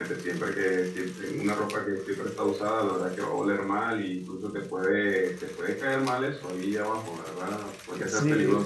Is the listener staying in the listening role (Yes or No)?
Yes